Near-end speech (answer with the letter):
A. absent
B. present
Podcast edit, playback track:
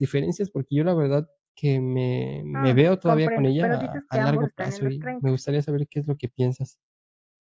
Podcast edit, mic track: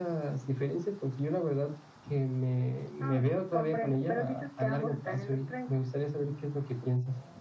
A